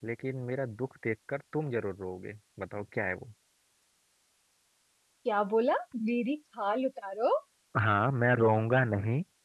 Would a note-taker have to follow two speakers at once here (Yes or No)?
No